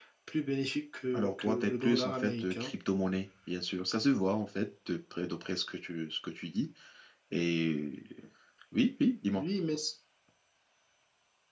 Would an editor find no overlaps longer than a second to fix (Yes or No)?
No